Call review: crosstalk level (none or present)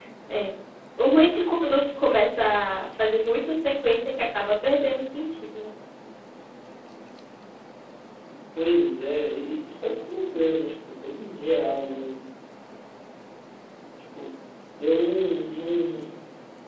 none